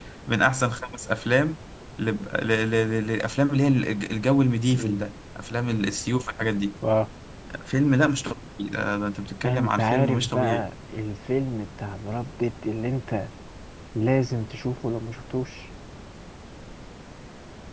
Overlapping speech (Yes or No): Yes